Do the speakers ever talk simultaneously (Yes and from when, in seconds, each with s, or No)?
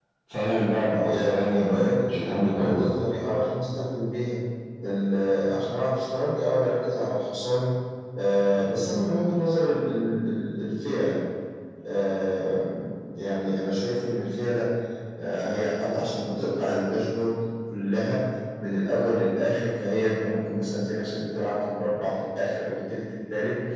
Yes, from 0.9 s